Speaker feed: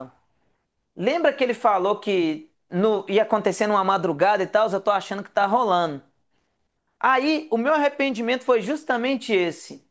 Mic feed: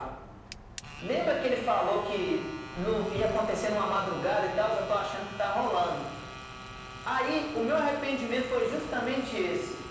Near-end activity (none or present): none